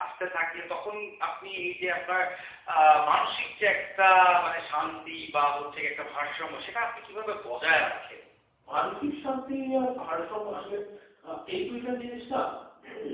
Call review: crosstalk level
none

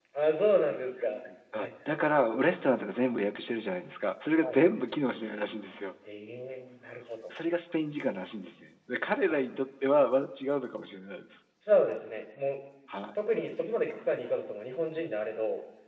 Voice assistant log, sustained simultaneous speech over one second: none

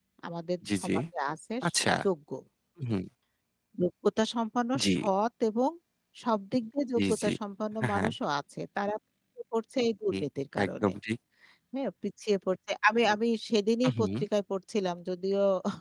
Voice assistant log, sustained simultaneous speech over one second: none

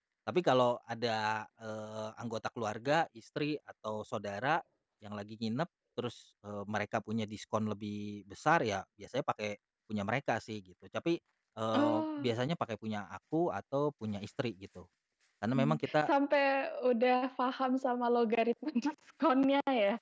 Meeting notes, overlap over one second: none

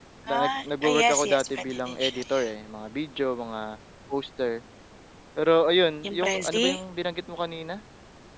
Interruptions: present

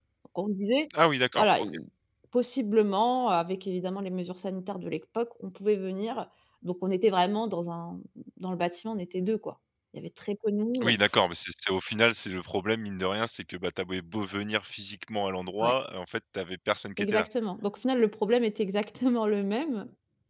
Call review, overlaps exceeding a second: none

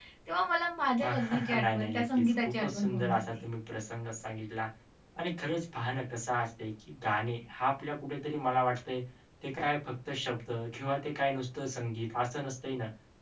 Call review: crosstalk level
present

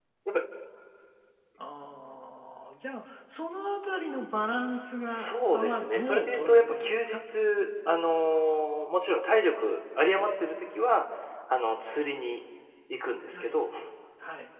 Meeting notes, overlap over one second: present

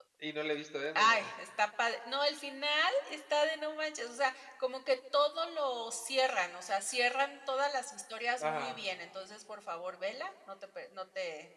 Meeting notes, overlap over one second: none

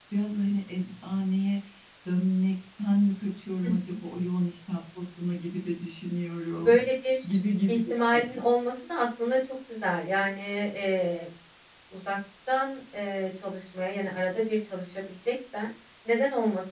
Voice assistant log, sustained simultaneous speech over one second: none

